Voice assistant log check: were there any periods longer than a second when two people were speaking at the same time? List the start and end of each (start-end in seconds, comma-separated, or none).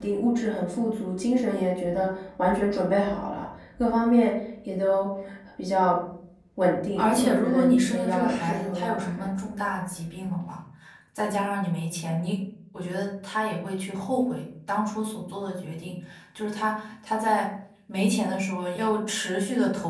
7.0-9.3